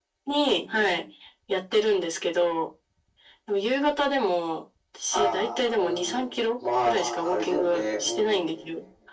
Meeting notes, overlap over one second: present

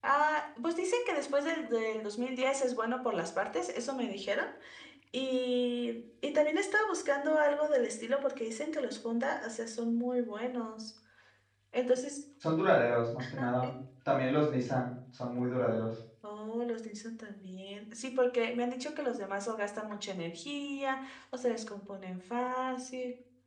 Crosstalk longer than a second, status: none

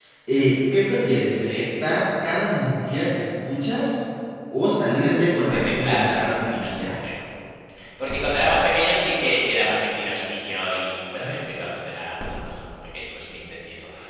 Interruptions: present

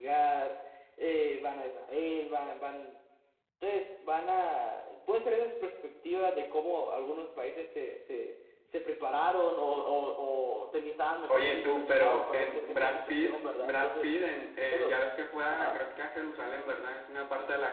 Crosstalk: present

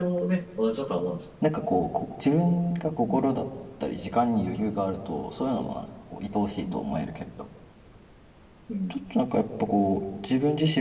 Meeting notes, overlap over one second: none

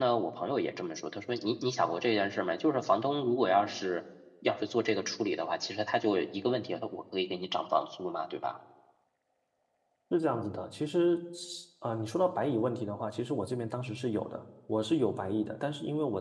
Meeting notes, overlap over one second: none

